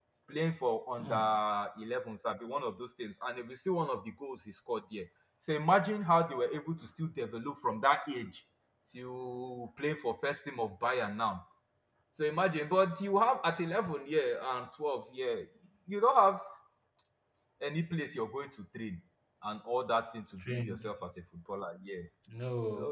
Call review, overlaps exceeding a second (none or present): none